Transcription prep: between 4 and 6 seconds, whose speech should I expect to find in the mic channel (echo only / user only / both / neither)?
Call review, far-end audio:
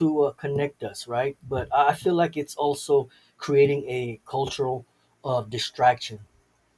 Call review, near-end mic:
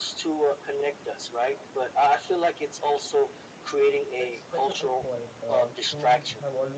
both